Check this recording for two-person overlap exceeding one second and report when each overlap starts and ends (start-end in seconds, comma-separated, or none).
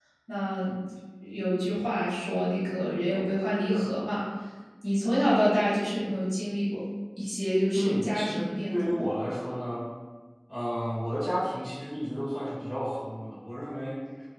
7.7-9.1